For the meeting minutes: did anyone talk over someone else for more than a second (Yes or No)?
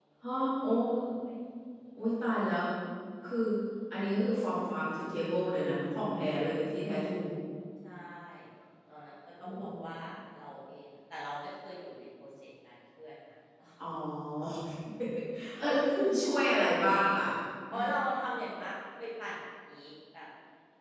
No